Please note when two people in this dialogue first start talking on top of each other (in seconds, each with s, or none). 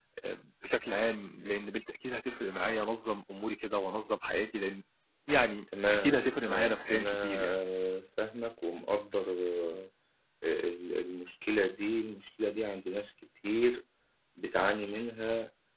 5.9 s